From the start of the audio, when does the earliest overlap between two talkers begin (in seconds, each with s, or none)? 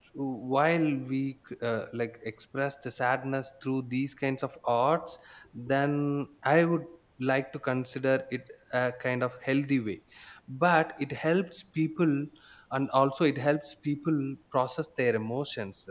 none